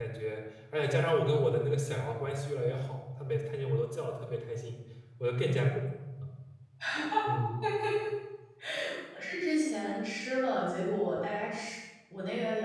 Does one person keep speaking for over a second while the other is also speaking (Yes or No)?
No